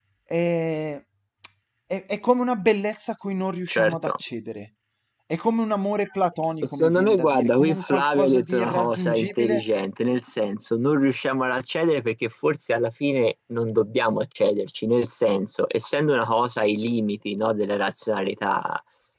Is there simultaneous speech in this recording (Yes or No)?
Yes